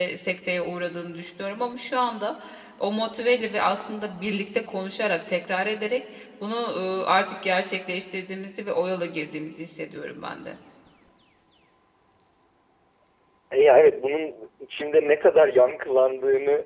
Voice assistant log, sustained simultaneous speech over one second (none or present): none